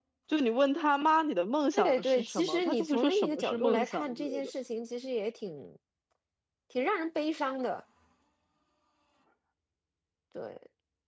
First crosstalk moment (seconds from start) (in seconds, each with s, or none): 1.7 s